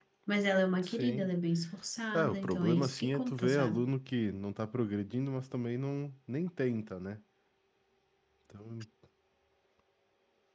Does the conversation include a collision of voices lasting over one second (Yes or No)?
Yes